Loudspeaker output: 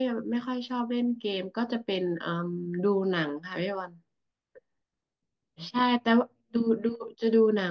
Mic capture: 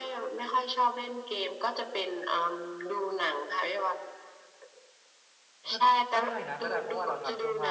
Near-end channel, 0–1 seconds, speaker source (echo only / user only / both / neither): echo only